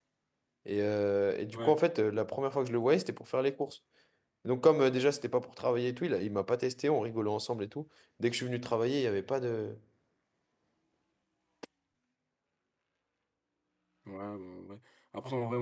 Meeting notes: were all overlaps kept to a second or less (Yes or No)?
Yes